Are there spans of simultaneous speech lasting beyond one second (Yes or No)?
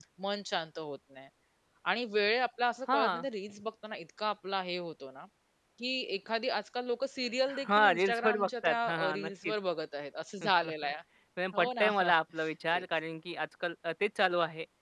Yes